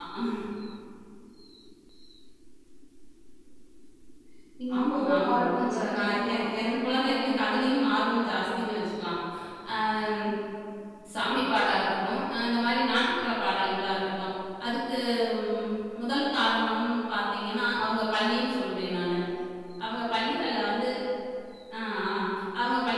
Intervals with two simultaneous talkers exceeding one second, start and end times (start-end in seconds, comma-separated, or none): 4.8-7.5